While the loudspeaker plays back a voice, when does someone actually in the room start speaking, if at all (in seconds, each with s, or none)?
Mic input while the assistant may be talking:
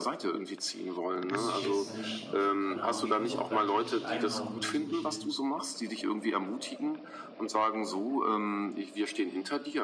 1.3 s